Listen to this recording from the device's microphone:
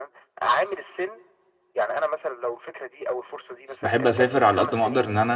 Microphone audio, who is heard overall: both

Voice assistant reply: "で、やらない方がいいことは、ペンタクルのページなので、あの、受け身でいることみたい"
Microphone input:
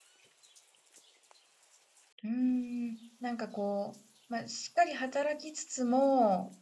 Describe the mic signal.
user only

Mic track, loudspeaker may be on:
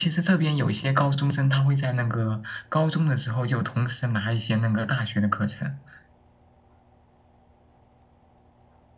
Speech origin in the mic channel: echo only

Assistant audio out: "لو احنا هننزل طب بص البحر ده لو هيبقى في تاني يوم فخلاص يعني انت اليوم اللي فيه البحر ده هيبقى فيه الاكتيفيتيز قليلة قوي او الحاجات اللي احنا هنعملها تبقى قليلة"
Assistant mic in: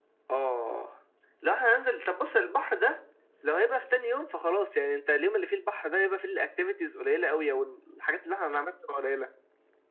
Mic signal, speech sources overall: echo only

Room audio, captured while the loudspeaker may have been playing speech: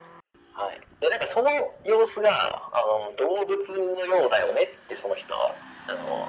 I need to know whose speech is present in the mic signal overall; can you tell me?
echo only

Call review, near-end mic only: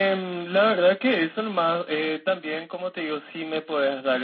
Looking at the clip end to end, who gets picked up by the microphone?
echo only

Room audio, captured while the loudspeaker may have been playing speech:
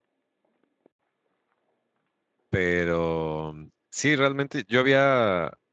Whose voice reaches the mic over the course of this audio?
user only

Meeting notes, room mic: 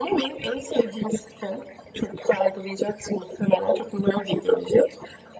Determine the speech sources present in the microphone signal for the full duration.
echo only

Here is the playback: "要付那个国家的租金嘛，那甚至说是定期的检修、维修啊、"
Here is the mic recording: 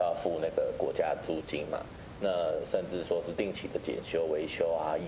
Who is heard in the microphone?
echo only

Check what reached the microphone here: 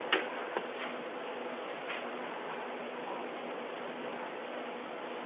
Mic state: neither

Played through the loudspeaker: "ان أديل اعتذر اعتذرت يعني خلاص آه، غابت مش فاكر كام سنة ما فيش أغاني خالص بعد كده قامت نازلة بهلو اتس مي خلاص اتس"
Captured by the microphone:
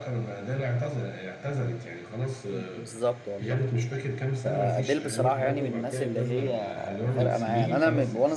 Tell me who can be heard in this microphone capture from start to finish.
both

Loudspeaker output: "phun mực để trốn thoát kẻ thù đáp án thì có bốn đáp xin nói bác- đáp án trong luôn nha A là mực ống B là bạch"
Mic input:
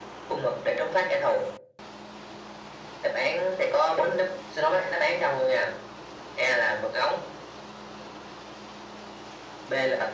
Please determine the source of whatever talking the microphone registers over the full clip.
echo only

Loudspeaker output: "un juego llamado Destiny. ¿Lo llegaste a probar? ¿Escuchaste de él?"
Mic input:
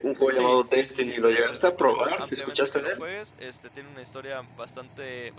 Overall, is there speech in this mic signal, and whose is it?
both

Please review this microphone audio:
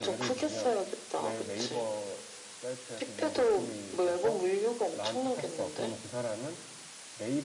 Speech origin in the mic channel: both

